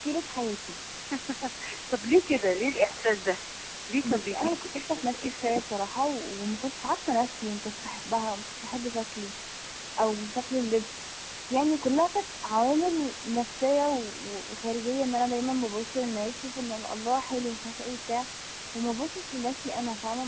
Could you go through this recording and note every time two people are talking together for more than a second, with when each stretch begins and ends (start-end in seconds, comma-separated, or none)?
4.0-5.6